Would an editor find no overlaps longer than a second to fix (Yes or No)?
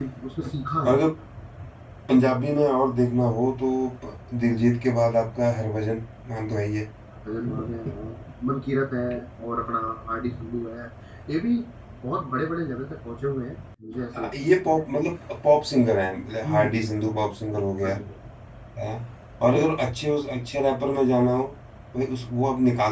Yes